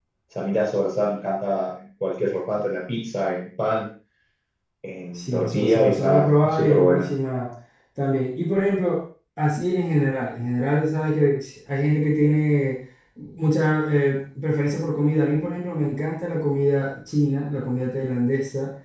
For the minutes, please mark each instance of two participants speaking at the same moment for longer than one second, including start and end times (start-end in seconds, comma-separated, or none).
5.1-7.0